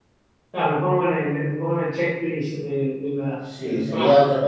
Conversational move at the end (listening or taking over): taking over